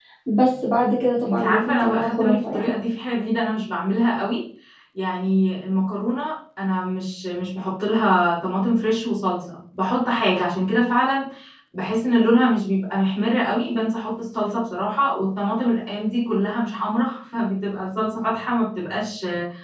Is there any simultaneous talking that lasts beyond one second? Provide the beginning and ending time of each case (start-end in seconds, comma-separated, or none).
1.2-2.7